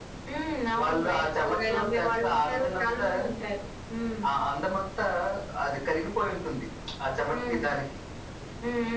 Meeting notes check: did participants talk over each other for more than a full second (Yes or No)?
Yes